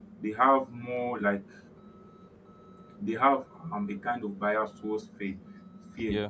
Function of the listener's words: listening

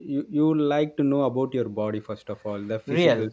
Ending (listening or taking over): listening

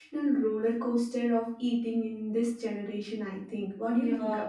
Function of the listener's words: taking over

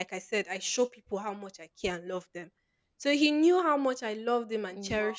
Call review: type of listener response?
listening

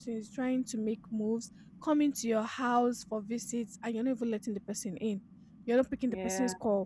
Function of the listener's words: listening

